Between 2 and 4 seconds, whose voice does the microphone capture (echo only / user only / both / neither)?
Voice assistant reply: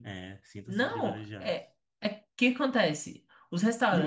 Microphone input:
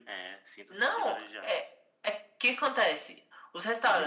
echo only